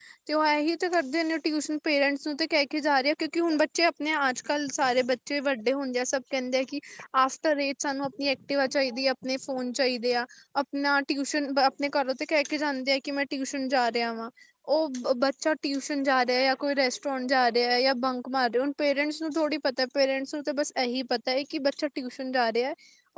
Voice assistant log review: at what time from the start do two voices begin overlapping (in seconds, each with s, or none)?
none